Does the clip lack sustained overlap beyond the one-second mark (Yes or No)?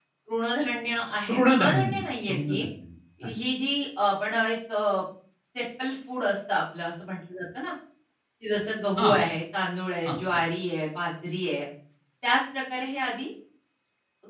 No